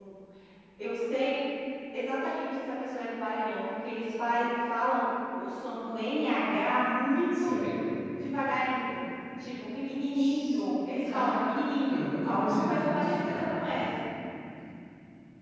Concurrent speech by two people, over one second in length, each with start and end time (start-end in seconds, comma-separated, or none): 11.1-13.6